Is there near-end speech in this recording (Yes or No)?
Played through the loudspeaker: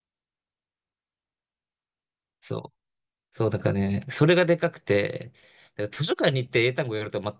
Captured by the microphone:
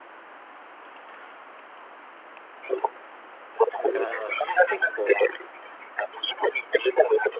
Yes